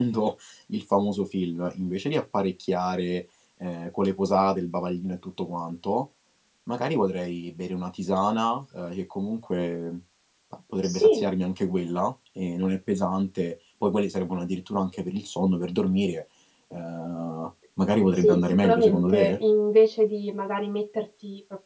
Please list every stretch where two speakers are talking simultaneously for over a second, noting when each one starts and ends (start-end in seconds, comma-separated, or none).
18.2-19.4